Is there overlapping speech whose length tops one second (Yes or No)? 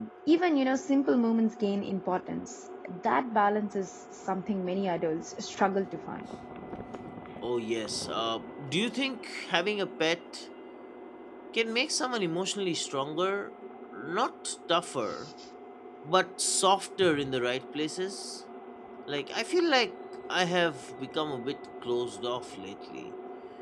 No